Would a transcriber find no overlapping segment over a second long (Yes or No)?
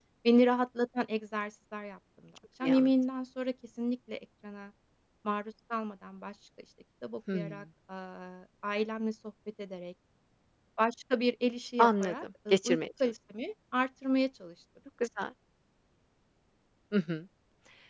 No